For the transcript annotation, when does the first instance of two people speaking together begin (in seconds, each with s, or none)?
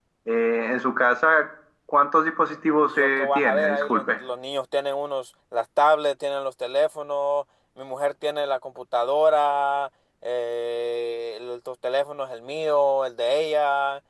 2.9 s